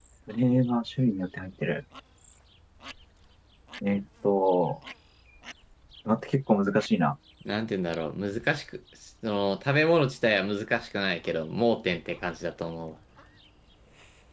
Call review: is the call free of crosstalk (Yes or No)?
Yes